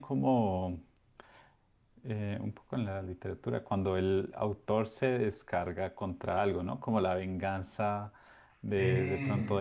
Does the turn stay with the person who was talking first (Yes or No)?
Yes